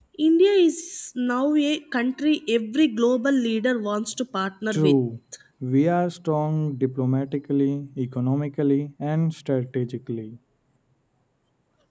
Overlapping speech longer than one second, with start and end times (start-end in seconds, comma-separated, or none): none